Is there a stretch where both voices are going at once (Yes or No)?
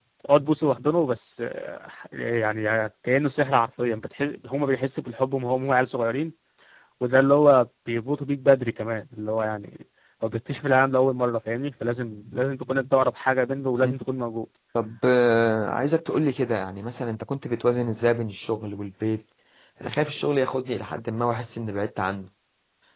No